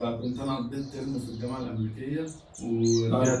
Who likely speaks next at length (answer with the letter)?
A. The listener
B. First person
B